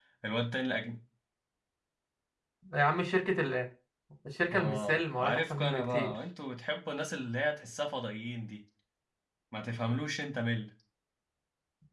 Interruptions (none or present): present